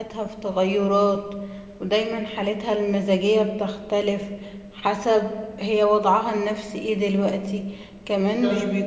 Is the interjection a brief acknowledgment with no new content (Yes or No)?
Yes